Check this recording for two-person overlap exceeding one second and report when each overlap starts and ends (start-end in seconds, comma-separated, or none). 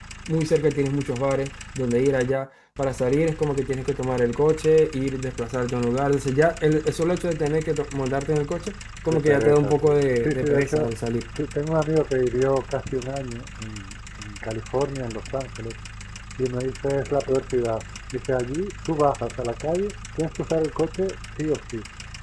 9.1-10.9